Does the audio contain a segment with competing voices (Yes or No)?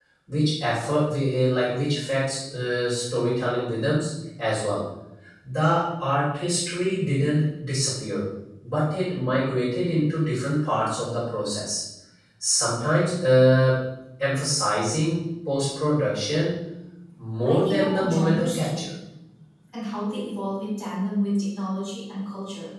Yes